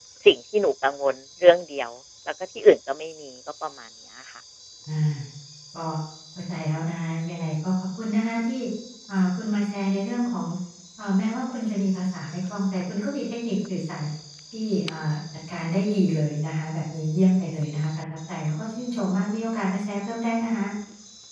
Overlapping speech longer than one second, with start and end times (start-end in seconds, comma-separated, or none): none